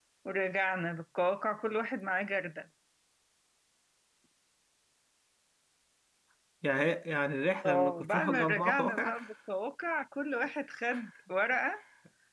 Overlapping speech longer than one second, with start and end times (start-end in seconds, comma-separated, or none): 7.7-9.2